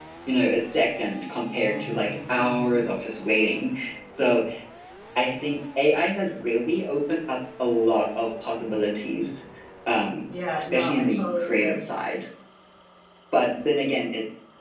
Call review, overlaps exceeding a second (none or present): present